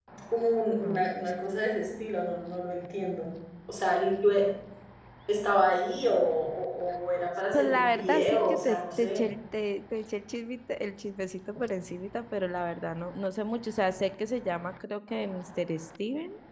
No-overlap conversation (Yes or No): No